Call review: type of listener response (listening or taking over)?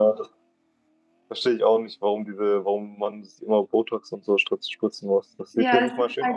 taking over